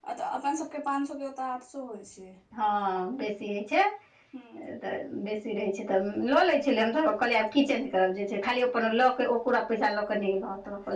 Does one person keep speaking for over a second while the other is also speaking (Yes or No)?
No